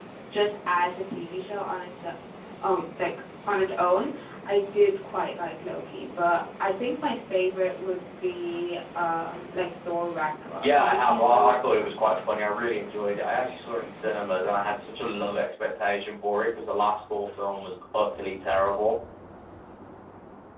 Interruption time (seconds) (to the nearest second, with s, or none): 10 s